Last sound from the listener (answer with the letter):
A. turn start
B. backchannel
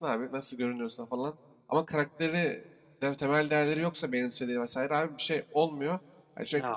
B